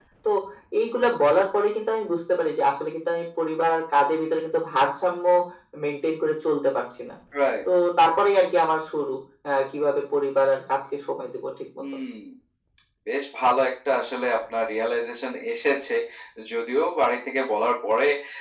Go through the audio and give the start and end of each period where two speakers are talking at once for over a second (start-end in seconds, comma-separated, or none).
none